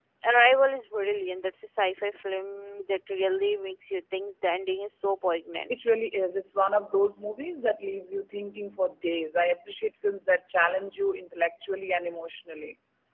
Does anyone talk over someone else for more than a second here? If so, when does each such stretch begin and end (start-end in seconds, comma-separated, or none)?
none